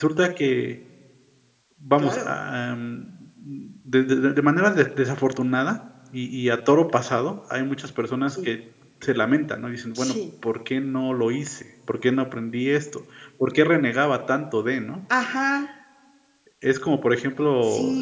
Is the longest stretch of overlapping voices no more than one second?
Yes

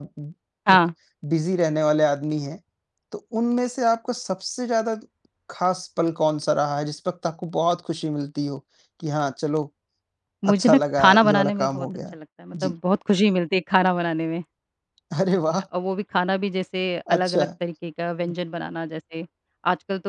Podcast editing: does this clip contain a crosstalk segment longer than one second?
Yes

